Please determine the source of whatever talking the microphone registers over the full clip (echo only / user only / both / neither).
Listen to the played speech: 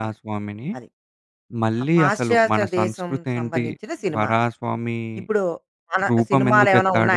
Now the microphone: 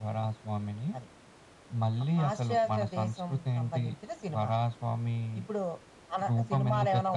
echo only